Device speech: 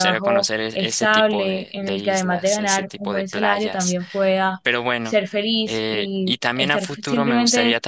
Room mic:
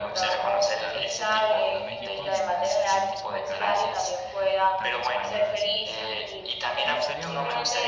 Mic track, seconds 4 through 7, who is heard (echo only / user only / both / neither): both